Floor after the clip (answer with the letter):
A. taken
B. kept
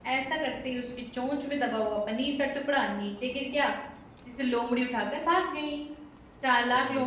B